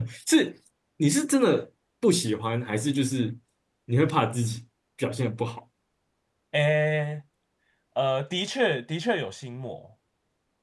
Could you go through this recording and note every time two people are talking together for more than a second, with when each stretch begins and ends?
none

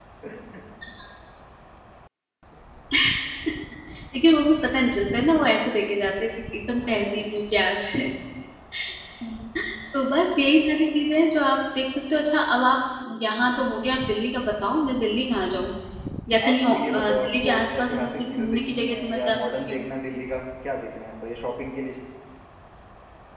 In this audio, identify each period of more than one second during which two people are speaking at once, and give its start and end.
16.4-19.8

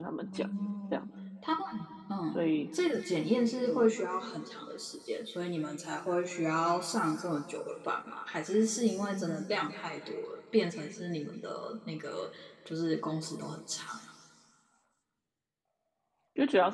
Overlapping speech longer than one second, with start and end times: none

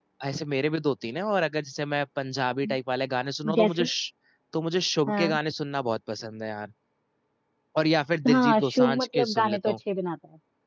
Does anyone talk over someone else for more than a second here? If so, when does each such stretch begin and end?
8.3-9.7

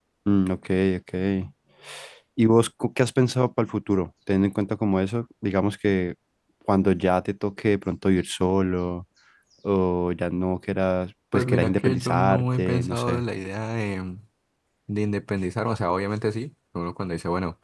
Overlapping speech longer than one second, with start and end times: 11.3-13.2

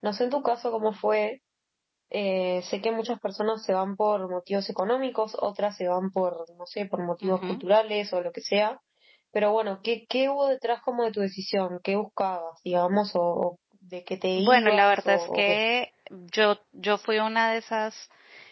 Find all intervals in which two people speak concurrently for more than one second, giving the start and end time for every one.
14.4-15.6

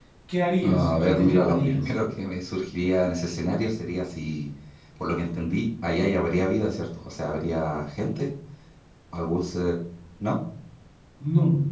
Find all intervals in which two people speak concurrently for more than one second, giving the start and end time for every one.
0.6-1.9

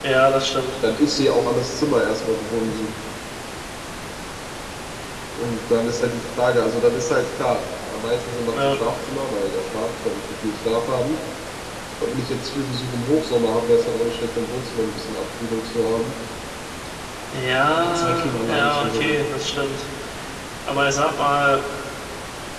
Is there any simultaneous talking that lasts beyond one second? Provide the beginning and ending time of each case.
17.8-19.1

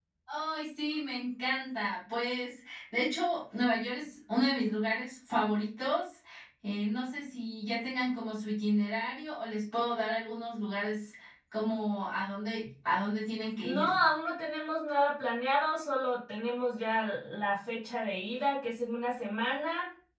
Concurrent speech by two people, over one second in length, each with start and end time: none

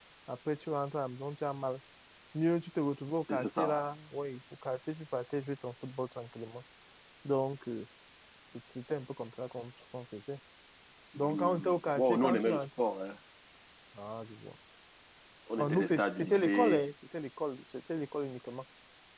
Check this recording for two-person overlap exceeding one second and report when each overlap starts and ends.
11.2-12.6, 15.6-16.9

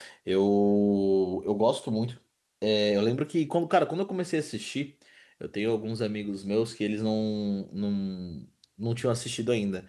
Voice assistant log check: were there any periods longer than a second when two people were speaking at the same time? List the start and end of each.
none

